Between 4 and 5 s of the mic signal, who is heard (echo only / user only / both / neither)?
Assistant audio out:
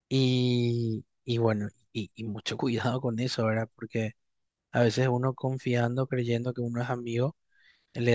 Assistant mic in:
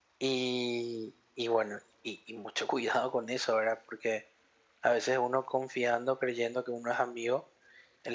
echo only